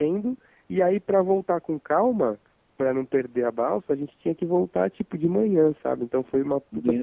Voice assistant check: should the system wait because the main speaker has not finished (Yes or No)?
Yes